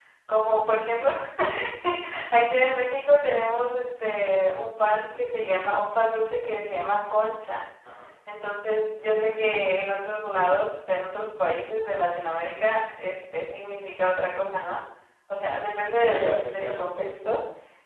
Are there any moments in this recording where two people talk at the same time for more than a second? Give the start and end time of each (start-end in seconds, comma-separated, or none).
16.0-17.3